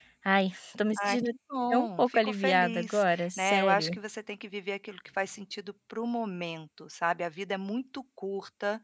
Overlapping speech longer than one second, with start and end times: 1.7-4.0

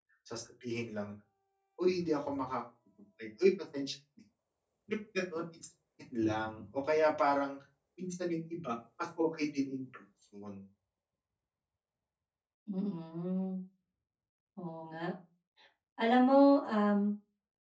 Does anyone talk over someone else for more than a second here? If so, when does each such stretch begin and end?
none

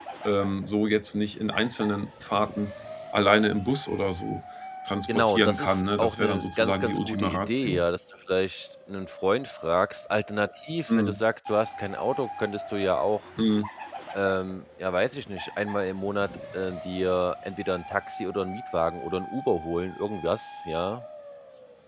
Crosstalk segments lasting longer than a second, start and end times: 5.1-7.8

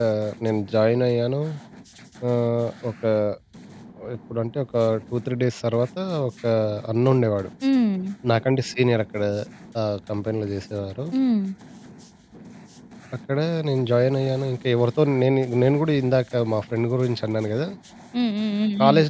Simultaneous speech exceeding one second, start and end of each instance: none

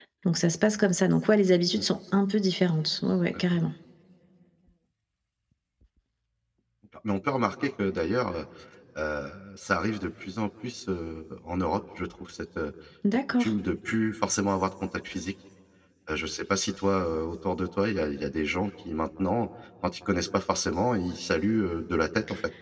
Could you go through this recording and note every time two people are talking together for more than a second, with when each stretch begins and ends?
none

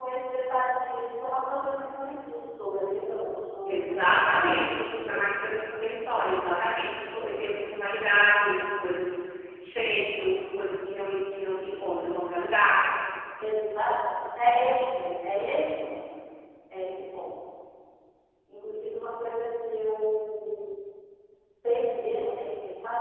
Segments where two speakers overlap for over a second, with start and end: 3.7-5.2

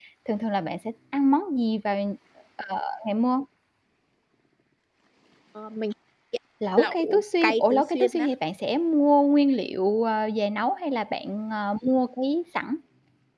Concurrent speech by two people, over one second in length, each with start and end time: 6.8-8.3

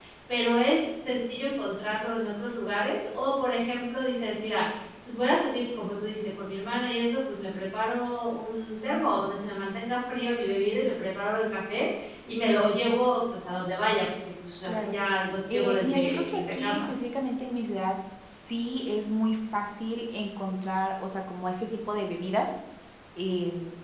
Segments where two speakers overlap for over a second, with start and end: 15.5-16.9

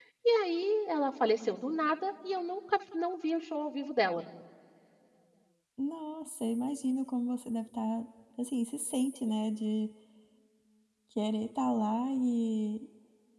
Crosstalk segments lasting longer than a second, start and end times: none

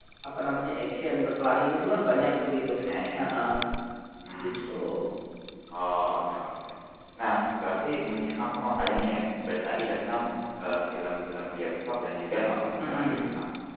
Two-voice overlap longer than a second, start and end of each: none

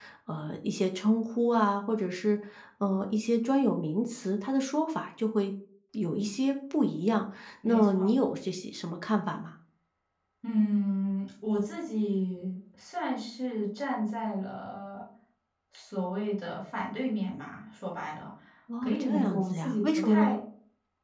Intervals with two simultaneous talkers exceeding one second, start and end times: 18.8-20.4

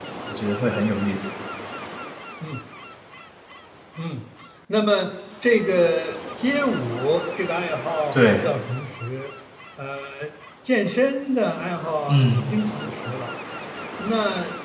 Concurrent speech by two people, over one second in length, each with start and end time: none

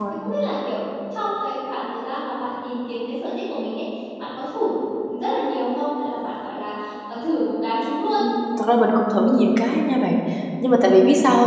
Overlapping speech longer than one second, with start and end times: none

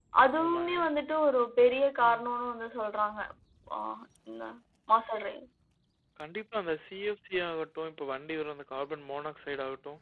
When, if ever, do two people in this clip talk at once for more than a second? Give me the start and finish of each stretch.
none

